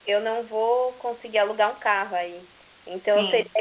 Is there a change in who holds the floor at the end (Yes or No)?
No